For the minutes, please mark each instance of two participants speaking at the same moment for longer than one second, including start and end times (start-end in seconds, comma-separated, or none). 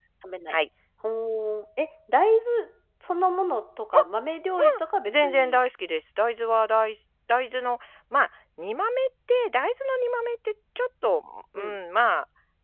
none